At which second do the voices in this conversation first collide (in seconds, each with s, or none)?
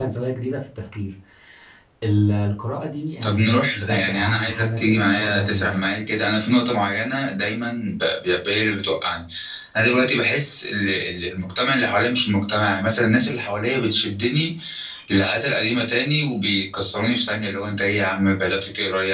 3.2 s